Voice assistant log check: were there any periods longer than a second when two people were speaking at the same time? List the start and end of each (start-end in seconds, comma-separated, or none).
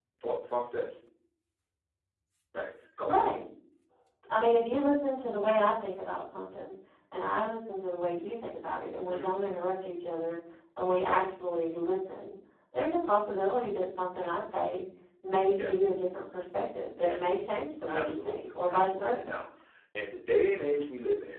17.9-19.3